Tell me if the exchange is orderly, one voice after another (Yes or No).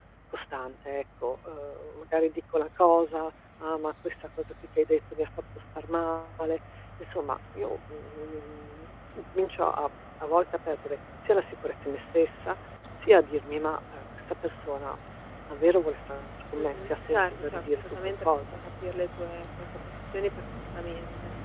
No